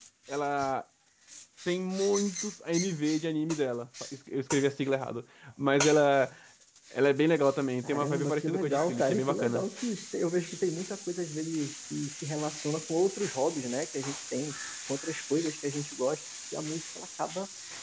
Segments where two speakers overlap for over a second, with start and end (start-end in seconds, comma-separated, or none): 7.8-9.6